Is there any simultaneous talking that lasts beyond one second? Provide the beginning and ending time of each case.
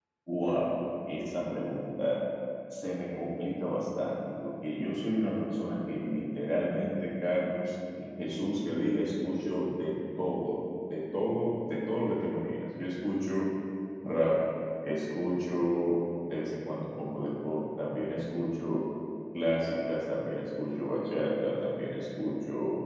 none

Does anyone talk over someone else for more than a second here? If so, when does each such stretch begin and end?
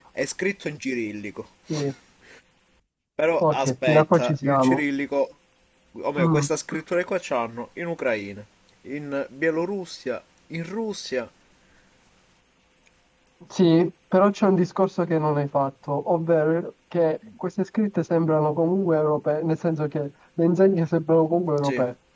3.4-4.8

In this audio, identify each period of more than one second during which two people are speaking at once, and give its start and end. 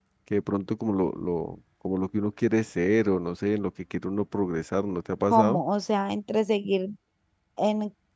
none

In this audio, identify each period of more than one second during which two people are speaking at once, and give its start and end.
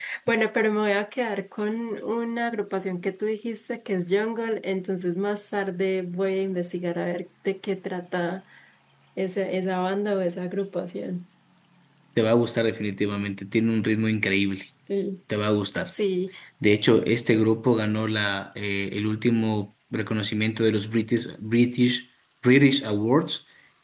none

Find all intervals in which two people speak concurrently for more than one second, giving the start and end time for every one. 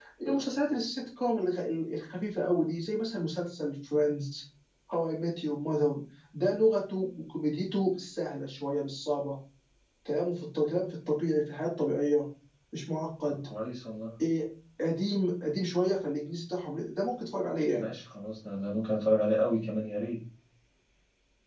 none

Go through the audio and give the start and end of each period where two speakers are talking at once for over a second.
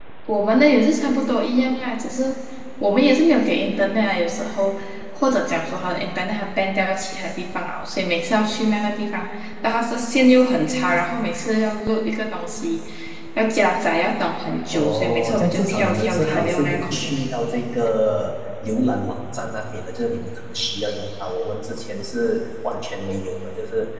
14.7-17.1

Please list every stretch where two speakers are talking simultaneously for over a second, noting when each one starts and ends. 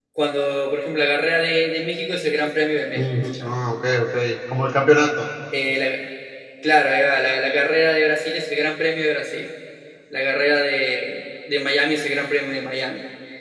none

